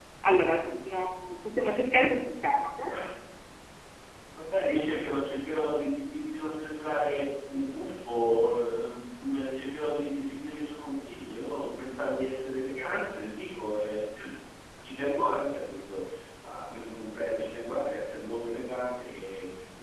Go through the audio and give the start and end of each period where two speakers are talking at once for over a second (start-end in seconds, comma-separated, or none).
none